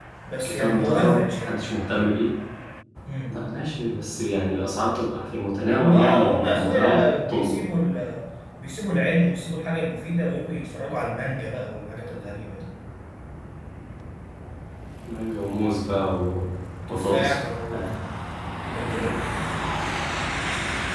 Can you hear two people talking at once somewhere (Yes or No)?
Yes